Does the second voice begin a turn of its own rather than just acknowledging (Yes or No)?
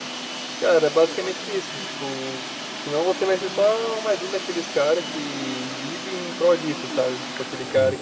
No